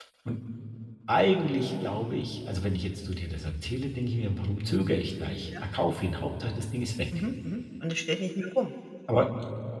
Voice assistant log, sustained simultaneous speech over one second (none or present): none